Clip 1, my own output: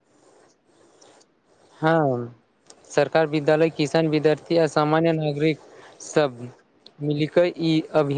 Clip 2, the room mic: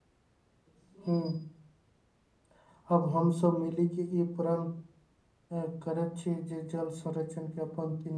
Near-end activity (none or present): present